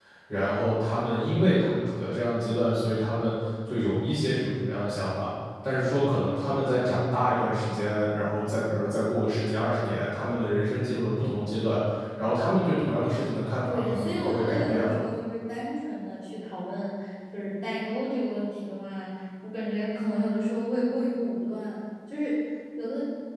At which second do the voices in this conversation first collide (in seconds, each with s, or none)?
13.6 s